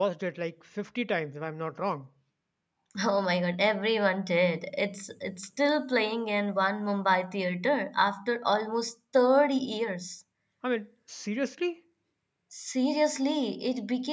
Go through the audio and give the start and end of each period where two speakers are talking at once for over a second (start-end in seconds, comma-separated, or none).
none